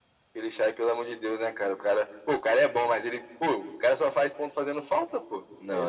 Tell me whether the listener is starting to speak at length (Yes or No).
Yes